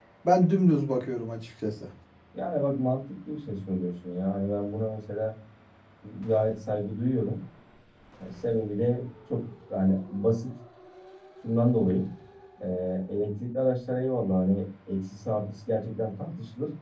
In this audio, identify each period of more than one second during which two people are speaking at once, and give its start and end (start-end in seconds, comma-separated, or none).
none